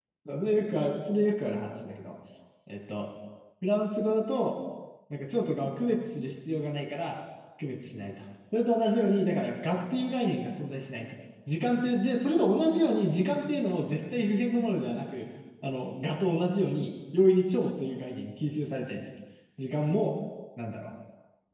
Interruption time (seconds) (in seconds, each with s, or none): none